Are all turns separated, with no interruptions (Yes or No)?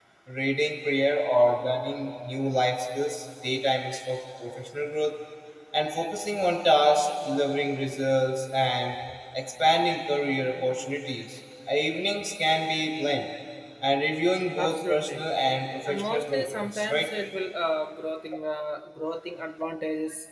No